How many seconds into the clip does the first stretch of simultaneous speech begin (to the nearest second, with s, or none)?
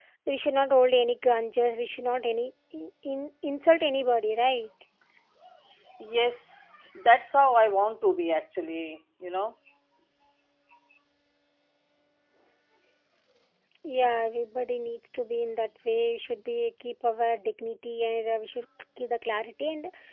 none